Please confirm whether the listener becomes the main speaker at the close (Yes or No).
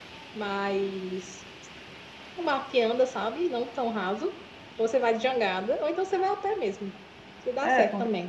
Yes